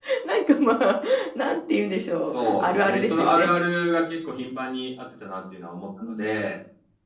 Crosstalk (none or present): present